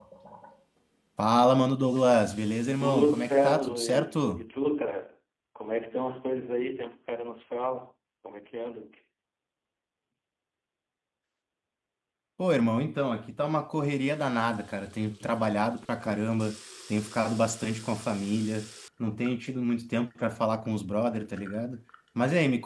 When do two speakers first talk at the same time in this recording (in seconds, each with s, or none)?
2.8 s